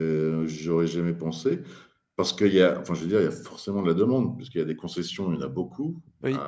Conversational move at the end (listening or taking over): listening